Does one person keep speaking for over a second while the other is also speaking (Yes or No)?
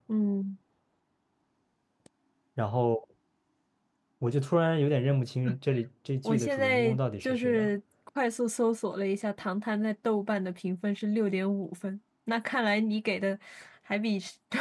Yes